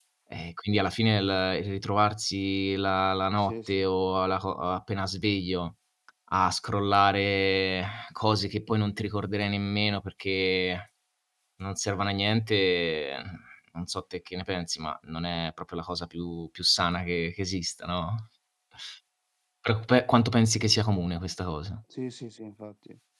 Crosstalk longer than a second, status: none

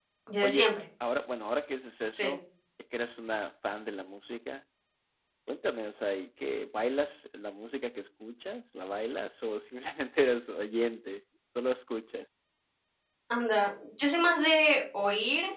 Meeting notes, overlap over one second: none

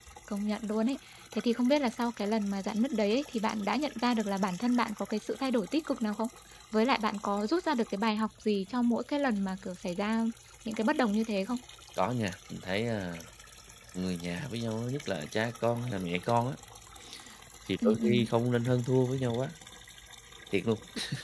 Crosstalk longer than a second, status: none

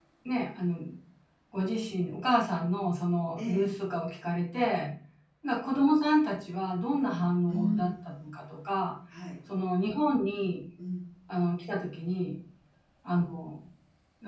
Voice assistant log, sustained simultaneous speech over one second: none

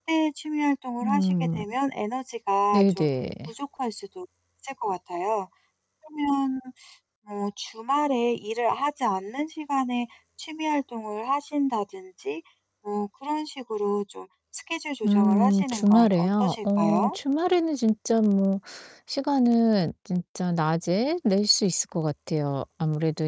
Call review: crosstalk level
present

